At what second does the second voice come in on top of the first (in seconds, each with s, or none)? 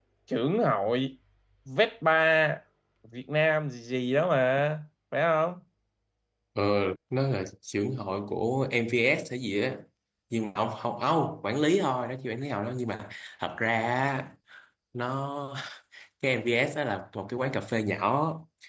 none